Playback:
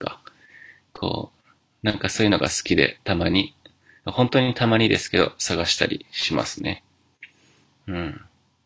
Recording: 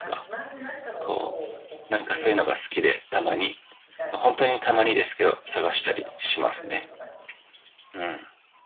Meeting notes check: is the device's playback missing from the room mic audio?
No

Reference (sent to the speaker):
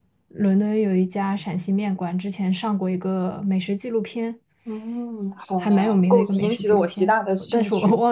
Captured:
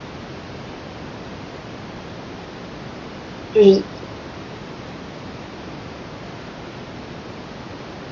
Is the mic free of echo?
Yes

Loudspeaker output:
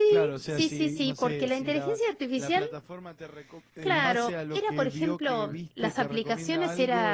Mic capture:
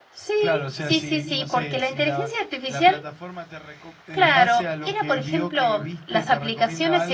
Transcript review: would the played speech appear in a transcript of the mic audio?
Yes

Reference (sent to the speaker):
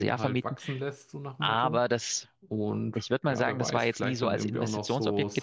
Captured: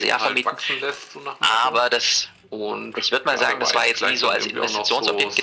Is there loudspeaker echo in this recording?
Yes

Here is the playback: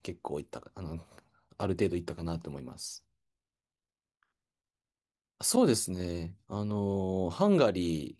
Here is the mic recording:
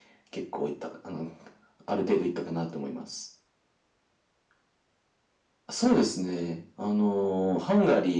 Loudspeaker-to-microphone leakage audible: Yes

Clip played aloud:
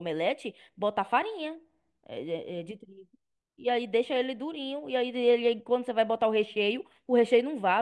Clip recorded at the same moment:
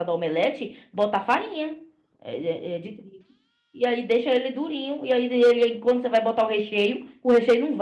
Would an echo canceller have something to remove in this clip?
Yes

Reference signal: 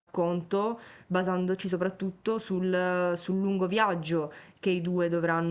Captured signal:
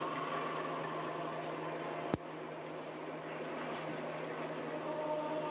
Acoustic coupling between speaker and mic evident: No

